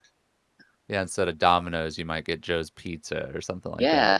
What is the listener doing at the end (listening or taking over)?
taking over